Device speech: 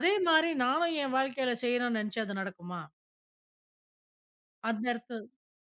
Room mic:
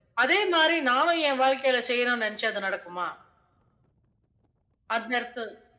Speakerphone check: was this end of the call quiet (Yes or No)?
Yes